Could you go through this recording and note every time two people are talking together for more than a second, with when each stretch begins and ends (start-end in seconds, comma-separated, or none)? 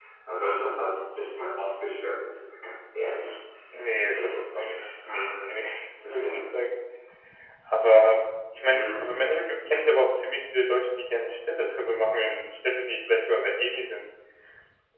4.0-5.4